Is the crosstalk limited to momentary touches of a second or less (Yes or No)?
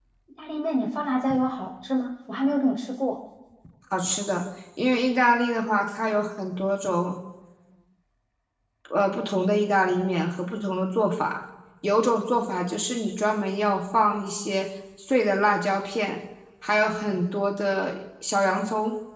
Yes